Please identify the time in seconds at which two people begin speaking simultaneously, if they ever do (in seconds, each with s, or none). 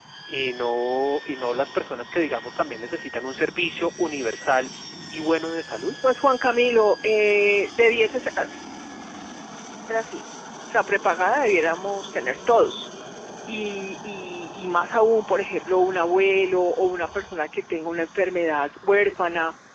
none